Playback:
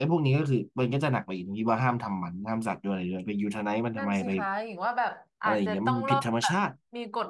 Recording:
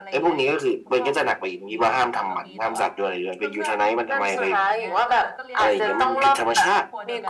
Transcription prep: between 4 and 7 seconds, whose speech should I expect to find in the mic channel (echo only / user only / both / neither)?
both